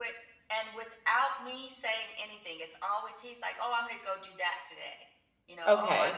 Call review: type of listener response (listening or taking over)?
taking over